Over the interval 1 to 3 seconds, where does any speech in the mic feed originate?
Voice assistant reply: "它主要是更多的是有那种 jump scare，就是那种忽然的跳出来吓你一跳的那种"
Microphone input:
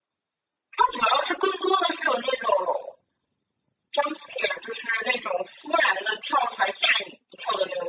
echo only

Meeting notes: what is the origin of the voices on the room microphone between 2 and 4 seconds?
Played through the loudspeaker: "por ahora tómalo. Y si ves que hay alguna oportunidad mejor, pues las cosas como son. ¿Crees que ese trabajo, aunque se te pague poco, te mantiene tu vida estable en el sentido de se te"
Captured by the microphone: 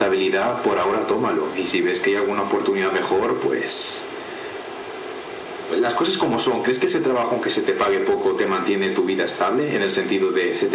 echo only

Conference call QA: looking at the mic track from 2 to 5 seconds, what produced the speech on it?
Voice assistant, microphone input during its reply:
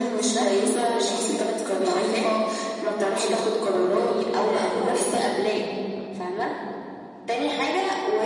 echo only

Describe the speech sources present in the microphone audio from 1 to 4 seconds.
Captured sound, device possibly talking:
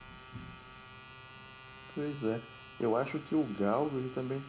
user only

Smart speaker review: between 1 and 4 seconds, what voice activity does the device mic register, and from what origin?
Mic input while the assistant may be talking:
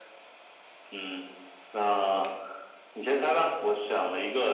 echo only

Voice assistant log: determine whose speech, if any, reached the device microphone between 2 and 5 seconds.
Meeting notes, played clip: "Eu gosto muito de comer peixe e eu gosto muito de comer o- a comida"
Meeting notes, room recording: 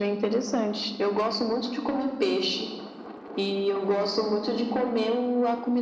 echo only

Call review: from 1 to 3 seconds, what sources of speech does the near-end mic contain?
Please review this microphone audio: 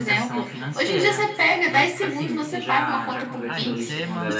echo only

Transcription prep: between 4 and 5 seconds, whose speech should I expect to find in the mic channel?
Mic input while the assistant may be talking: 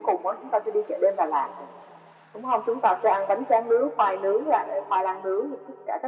echo only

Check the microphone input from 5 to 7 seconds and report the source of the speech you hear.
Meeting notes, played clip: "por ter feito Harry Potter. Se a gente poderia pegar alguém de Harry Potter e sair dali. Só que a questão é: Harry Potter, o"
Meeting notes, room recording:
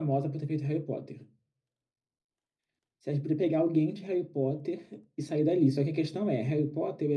echo only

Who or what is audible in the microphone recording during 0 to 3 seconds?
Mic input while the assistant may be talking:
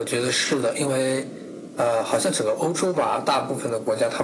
echo only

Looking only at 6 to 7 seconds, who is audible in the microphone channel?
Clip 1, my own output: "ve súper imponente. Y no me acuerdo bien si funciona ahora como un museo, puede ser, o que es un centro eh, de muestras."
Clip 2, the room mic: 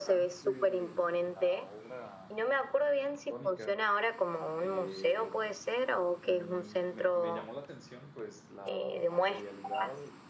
both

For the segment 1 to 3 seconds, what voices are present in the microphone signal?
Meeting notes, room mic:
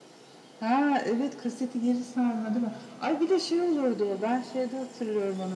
echo only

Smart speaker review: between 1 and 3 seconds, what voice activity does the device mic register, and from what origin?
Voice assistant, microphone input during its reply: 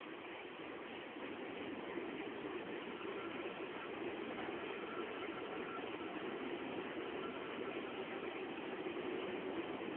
neither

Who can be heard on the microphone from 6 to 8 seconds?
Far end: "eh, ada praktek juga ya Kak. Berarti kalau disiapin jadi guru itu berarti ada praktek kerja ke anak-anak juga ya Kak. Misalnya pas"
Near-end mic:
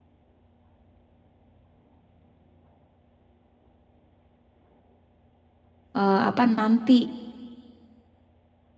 user only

